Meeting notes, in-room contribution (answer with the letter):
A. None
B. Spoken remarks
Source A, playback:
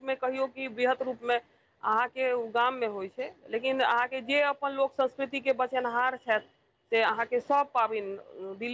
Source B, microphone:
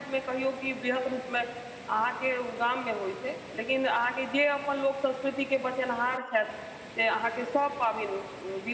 A